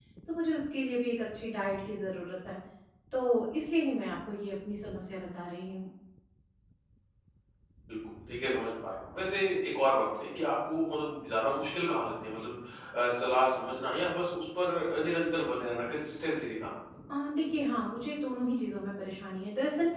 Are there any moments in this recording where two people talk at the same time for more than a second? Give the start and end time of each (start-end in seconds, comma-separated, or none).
none